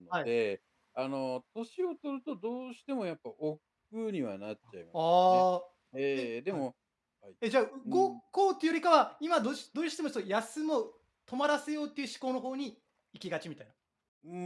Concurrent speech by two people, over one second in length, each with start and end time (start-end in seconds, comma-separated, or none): none